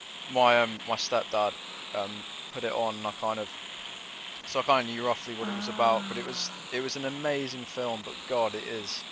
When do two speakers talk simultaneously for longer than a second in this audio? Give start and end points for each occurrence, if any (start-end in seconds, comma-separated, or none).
5.4-6.9